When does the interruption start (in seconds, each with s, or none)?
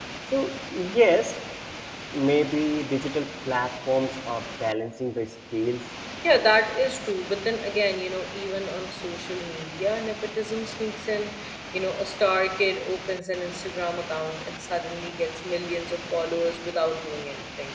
none